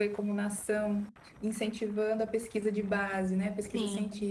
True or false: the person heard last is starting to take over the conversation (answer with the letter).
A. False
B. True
A